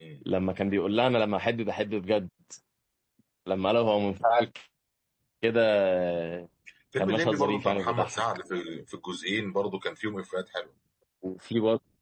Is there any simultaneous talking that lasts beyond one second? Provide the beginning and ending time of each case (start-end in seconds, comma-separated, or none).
7.0-8.2